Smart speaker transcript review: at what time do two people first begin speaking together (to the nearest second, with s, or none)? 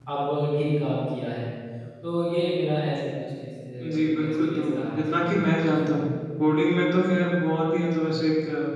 4 s